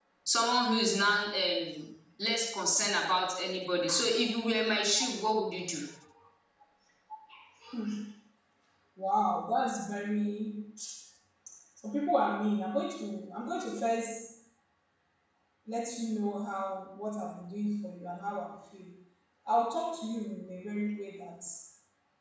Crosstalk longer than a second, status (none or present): none